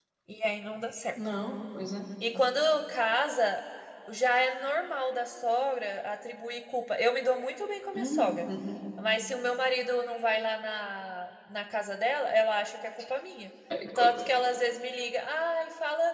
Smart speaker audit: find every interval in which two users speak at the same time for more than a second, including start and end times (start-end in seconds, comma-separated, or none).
none